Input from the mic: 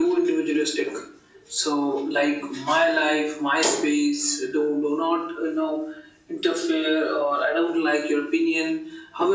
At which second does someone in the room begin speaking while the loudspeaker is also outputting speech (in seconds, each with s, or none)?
none